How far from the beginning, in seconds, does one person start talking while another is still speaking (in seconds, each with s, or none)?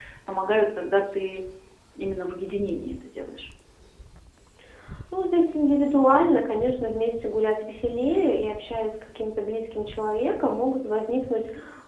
none